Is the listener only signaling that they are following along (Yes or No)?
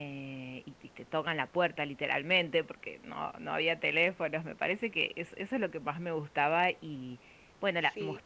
Yes